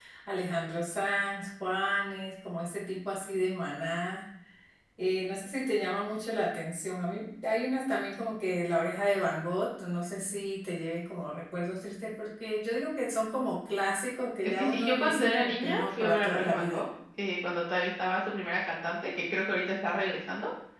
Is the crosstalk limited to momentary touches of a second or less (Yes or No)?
No